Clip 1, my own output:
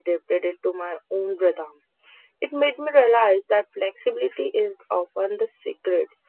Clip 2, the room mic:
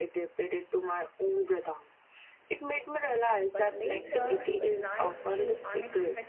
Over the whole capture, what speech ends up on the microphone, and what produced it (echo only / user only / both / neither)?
both